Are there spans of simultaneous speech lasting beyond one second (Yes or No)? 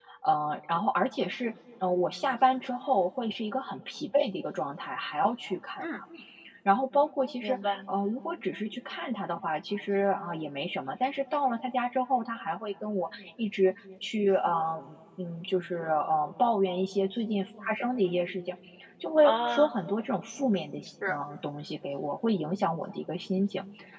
No